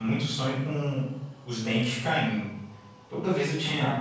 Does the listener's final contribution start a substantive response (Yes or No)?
Yes